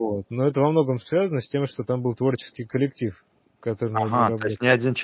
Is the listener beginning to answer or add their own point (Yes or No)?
Yes